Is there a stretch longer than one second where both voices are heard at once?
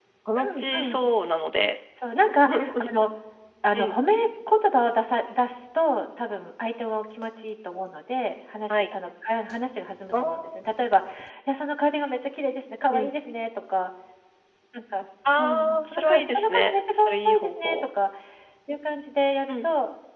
Yes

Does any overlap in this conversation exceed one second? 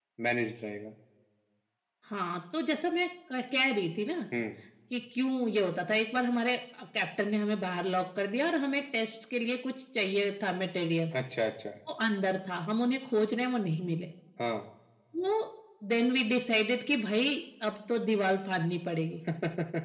No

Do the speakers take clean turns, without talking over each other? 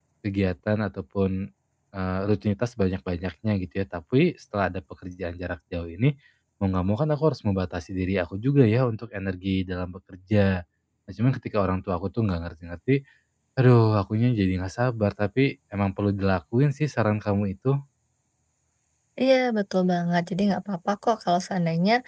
Yes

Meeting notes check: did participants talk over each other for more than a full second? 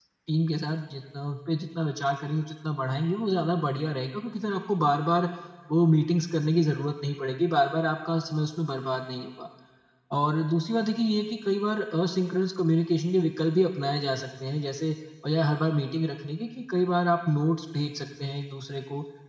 No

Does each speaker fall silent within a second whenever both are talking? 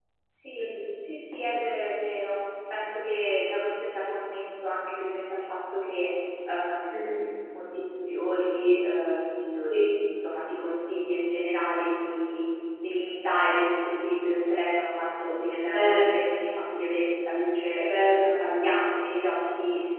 Yes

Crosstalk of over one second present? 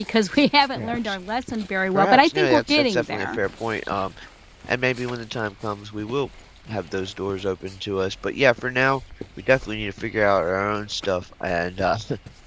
Yes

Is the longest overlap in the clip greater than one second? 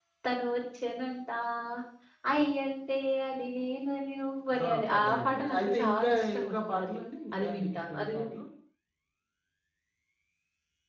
Yes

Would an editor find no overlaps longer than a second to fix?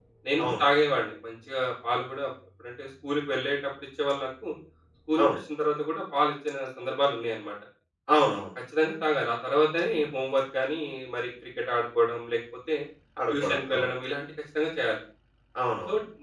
Yes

